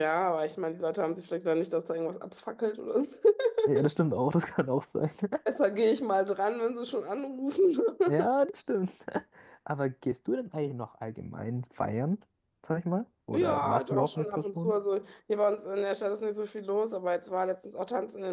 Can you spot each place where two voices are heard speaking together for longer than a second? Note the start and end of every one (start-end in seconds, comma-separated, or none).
13.3-14.7